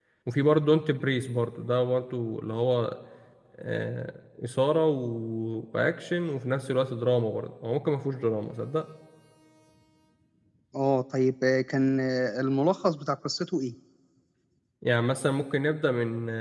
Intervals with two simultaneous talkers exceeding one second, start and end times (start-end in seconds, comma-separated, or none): none